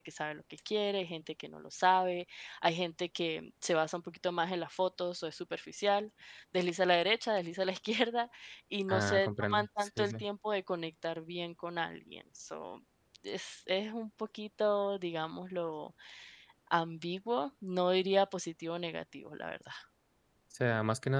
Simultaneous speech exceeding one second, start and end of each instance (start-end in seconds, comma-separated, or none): 8.9-10.1